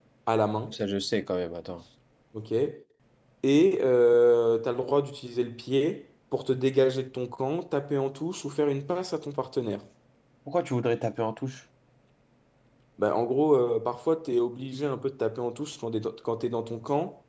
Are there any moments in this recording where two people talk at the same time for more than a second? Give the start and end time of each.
none

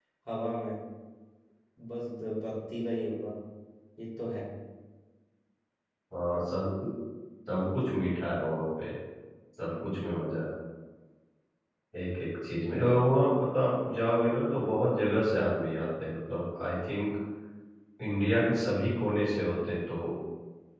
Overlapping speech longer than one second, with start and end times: none

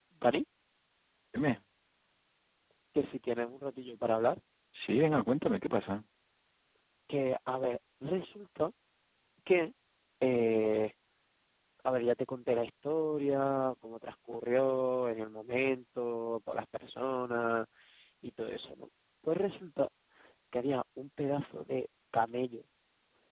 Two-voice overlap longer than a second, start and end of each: none

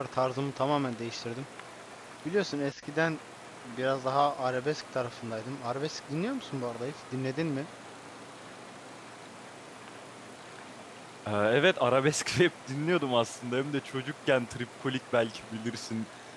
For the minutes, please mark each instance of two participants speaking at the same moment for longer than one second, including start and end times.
none

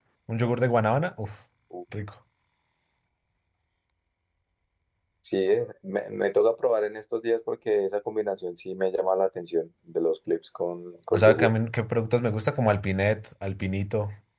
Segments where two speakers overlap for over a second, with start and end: none

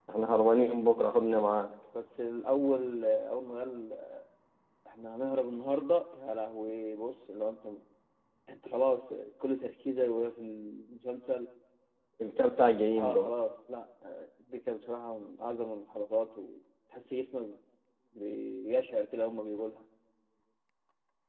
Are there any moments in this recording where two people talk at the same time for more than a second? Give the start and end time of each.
none

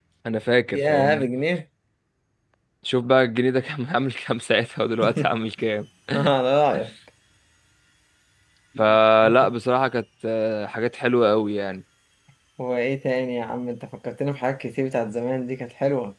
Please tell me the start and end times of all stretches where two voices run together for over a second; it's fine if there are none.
none

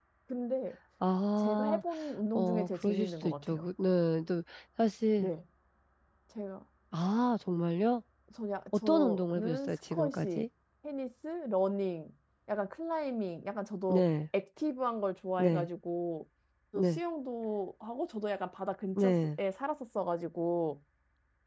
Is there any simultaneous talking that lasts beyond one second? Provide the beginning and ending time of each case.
2.4-3.7, 8.9-10.4

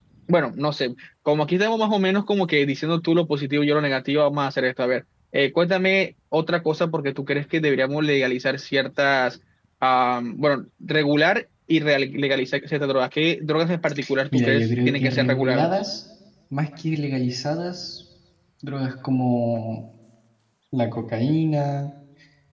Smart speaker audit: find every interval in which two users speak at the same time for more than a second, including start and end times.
14.3-15.8

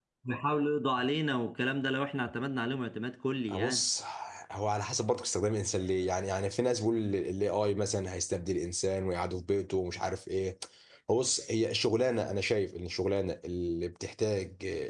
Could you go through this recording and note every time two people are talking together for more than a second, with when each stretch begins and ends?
none

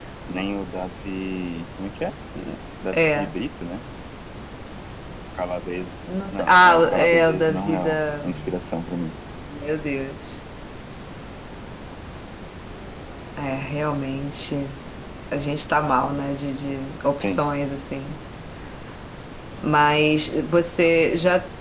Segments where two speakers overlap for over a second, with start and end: 6.3-8.4

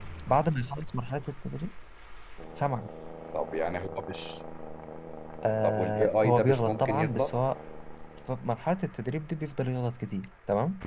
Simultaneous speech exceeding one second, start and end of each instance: 5.6-7.3

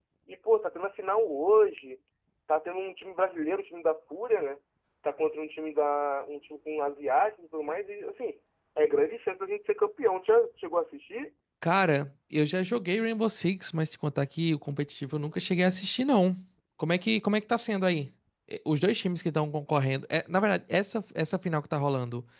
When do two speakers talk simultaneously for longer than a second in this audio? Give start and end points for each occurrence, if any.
none

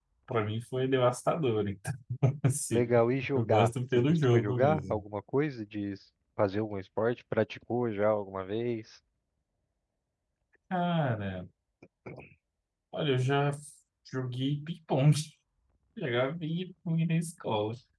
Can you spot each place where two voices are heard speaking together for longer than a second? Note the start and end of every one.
3.4-5.0

